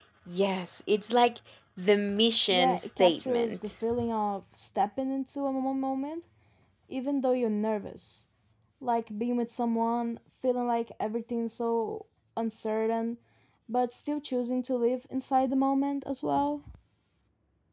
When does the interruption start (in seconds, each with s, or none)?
2.5 s